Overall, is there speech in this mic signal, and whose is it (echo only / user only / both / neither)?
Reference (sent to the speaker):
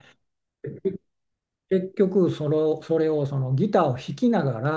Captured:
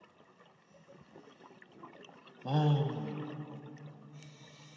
user only